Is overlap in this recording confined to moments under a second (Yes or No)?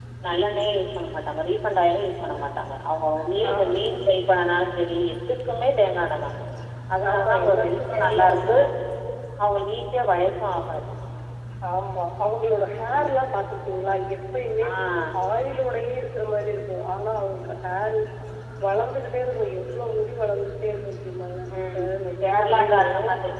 No